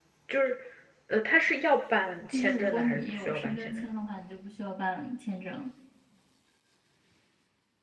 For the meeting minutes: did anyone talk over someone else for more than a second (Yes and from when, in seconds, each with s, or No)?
Yes, from 2.3 s